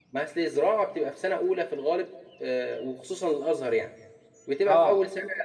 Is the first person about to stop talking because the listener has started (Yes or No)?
No